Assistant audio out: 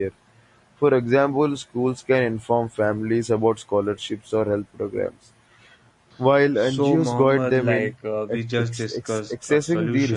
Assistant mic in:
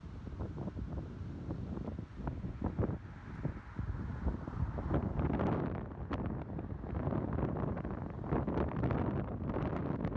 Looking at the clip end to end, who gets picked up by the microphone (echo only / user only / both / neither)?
neither